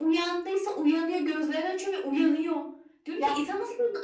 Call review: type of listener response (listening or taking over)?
listening